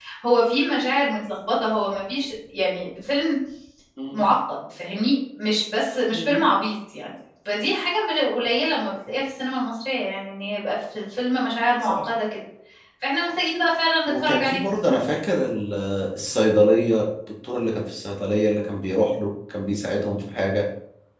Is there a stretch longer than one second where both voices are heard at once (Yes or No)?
No